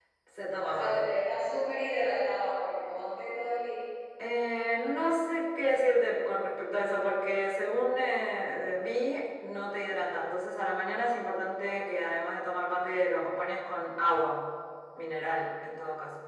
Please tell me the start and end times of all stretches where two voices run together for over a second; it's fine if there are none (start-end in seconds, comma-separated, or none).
none